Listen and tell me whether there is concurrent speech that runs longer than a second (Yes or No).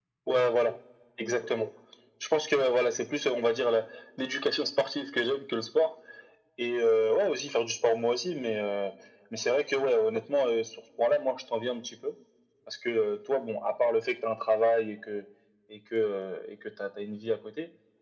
No